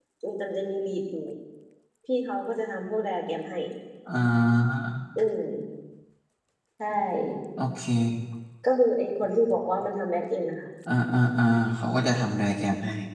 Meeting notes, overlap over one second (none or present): none